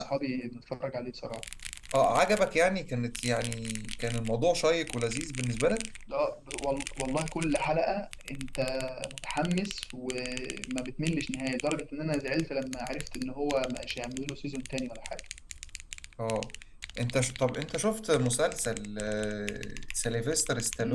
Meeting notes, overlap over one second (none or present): none